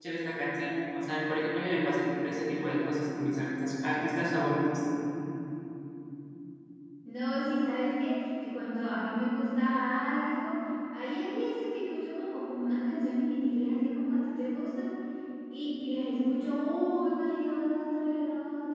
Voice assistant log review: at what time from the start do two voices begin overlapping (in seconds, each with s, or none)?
none